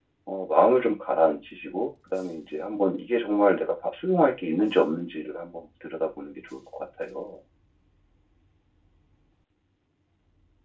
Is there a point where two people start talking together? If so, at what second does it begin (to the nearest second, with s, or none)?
none